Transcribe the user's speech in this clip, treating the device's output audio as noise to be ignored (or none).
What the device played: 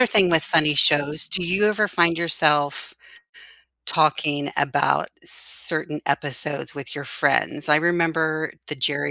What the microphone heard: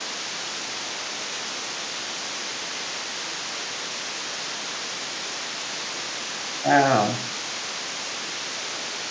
Wow.